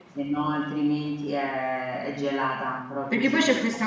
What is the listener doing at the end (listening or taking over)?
taking over